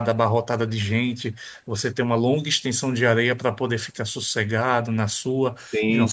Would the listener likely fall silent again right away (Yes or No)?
Yes